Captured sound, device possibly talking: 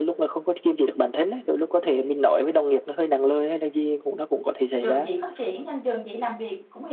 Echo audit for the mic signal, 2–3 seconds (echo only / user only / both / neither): echo only